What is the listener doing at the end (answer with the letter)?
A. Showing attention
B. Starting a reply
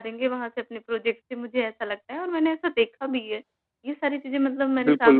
B